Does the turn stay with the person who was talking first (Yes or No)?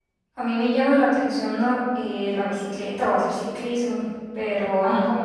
Yes